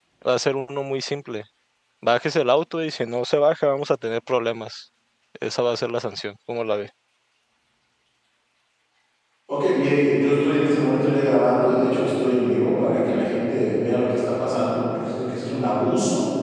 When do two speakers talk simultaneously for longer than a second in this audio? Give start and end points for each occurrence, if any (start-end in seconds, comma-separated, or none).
none